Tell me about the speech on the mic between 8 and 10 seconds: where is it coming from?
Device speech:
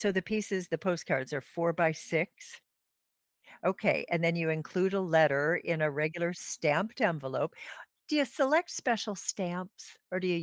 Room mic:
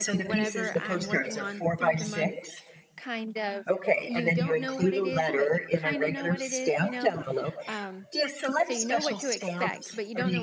both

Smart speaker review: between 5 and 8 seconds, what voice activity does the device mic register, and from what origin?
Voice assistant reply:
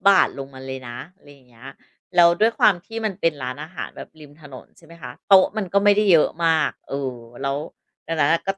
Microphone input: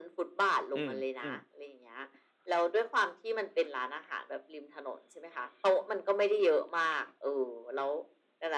echo only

